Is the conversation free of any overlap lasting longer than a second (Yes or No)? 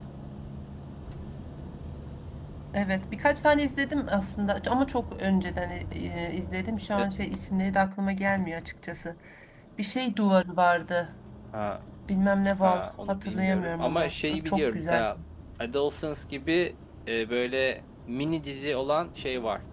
No